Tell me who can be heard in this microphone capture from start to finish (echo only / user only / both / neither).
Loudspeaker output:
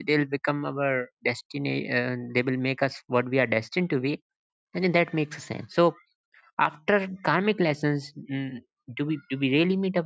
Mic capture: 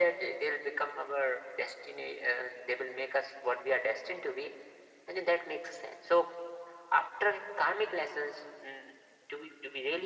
echo only